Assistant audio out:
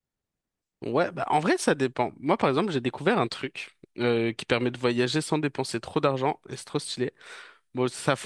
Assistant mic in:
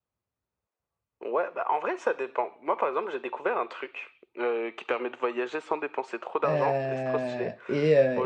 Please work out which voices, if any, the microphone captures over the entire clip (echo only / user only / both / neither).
both